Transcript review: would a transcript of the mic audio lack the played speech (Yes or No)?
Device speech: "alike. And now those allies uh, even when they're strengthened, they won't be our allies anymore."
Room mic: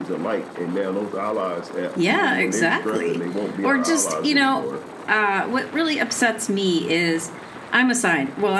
No